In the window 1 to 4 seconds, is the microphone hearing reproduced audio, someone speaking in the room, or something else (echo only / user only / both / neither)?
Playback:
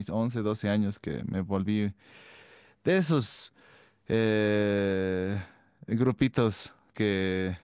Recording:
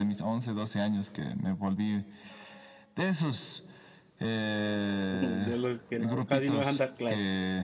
echo only